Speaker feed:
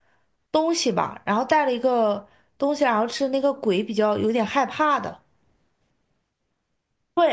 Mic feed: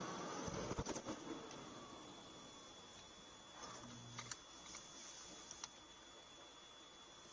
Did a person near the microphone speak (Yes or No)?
No